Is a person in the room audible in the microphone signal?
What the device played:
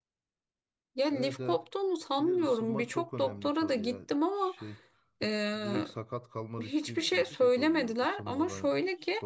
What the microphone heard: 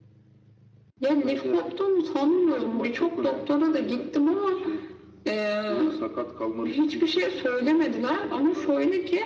No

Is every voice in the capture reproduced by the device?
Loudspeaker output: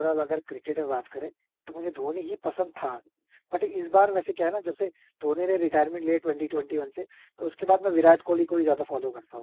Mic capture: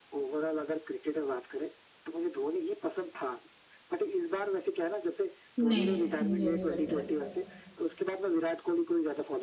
No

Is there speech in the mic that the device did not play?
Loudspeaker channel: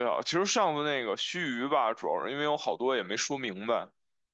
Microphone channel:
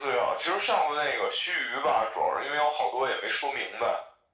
No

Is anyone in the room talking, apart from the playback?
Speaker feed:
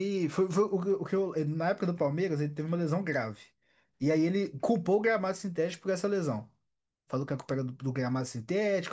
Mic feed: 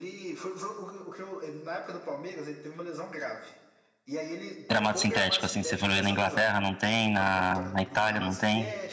Yes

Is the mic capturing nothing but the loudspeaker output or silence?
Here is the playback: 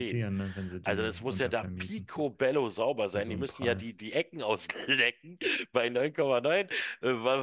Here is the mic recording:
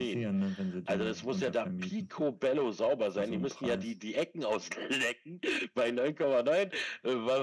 Yes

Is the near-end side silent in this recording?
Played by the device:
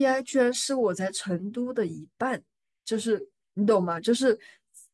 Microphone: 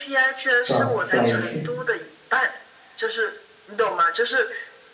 No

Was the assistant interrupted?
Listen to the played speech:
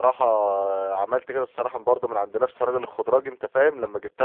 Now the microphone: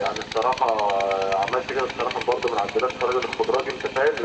No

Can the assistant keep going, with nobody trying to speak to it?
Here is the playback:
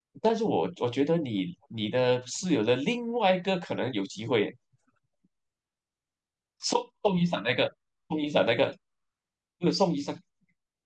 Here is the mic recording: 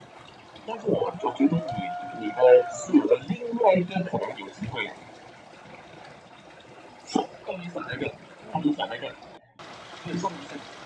Yes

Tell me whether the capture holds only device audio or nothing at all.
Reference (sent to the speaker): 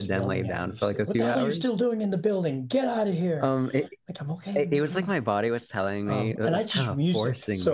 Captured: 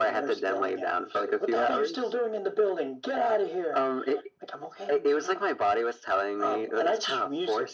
Yes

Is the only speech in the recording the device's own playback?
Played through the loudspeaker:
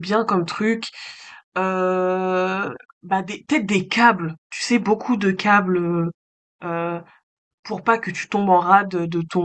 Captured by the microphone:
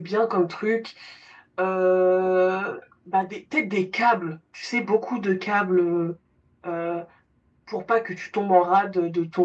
Yes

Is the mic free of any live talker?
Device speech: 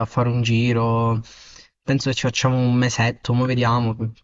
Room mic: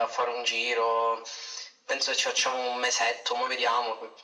Yes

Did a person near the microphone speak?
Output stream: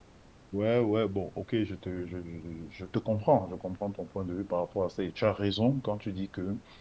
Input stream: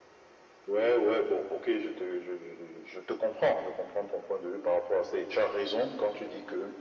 No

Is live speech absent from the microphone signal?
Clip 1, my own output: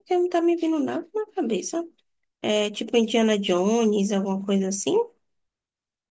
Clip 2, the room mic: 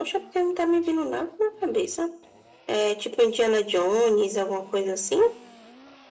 Yes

